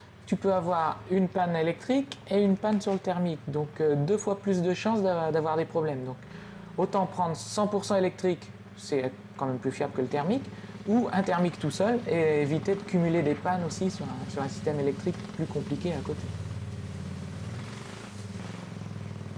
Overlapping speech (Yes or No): No